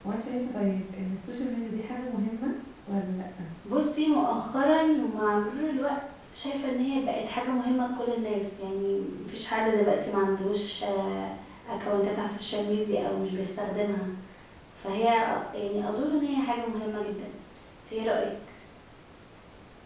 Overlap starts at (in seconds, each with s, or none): none